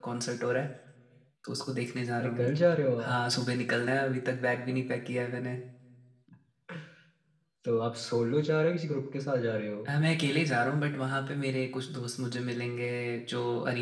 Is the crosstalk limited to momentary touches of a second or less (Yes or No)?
Yes